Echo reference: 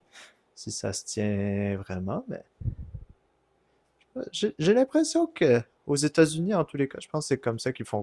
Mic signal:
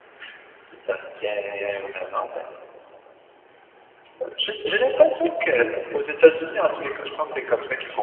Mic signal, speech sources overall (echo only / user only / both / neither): both